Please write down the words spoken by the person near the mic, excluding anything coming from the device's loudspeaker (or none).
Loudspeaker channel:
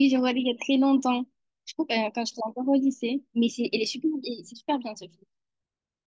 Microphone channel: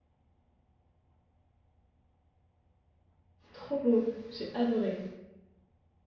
Trop beau. J'ai adoré.